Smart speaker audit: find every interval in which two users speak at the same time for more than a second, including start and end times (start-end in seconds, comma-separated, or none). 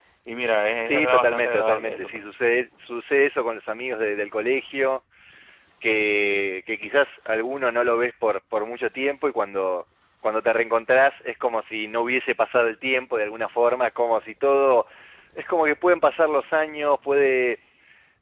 0.8-2.2